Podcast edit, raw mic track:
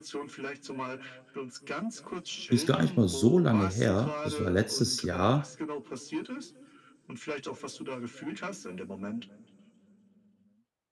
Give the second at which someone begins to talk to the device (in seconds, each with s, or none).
2.5 s